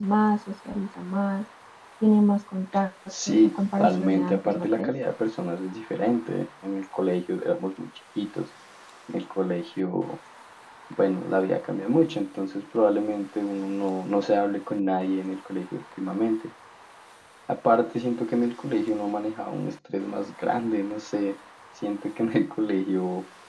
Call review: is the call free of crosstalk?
No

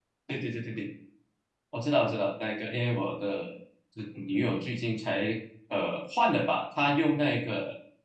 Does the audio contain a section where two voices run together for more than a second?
No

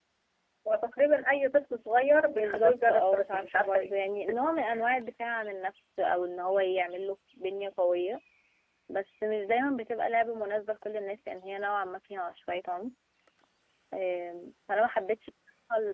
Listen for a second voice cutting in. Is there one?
Yes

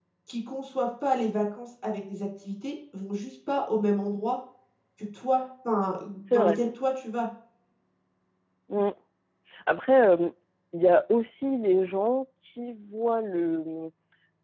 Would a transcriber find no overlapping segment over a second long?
Yes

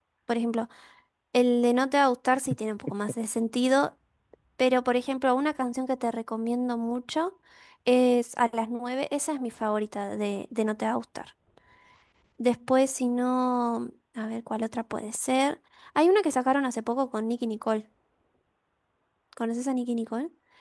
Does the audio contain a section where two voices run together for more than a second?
No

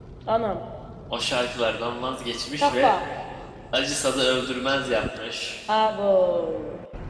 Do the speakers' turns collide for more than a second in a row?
No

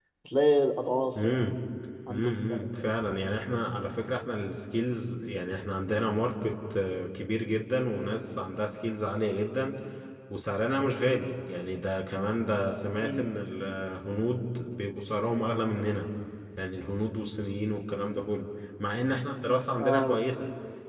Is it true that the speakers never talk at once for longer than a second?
Yes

